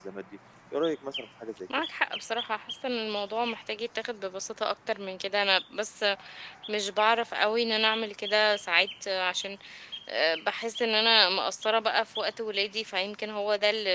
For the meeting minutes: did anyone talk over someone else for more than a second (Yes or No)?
No